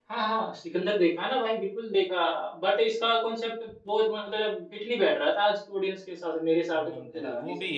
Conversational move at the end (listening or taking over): taking over